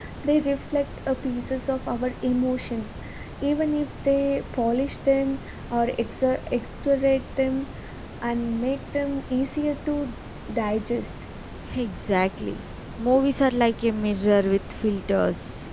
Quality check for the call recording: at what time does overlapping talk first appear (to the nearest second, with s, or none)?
none